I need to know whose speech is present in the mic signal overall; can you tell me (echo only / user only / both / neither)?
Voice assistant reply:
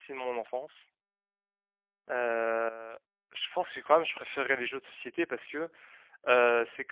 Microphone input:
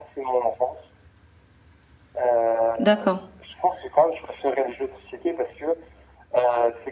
both